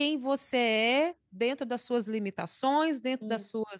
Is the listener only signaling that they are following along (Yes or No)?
Yes